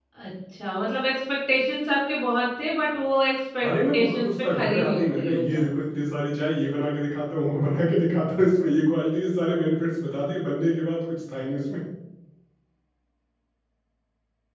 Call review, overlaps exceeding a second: present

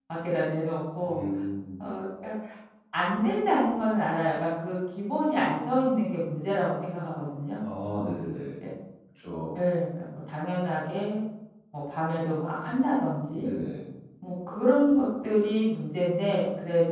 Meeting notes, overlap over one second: none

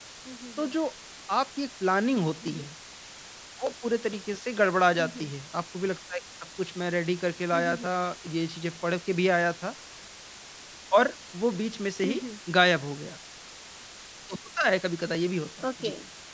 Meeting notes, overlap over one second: none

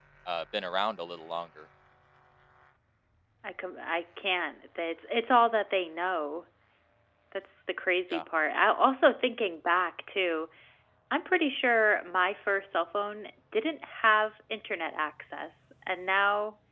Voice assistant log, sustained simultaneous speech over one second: none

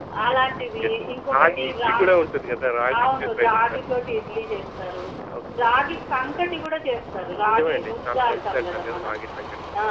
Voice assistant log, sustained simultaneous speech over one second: present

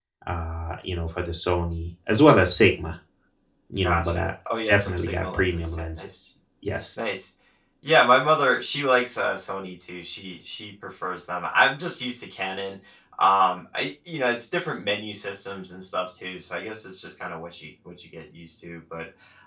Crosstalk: present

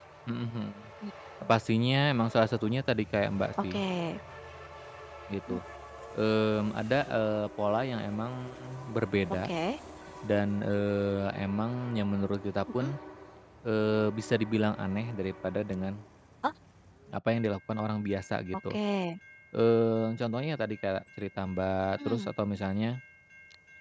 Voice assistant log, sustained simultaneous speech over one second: none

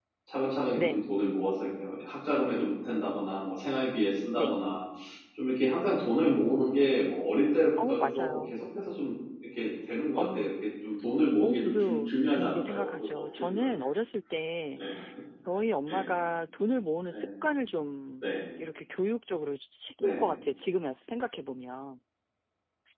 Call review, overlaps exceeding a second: present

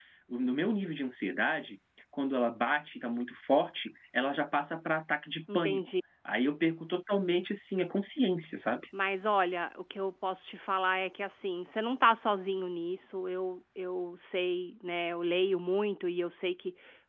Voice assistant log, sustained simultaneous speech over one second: none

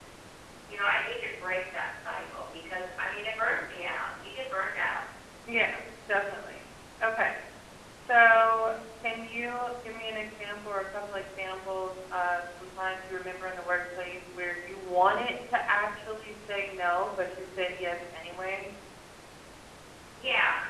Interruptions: none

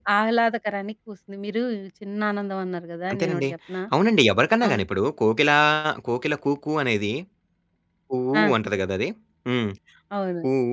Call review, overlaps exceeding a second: none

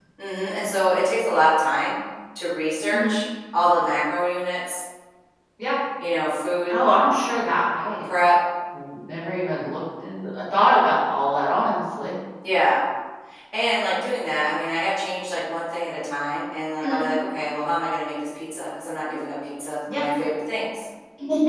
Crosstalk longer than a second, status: none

